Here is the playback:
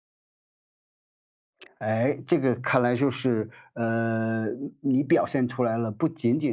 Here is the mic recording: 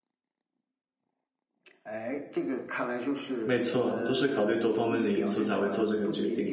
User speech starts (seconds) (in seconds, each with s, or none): 3.4 s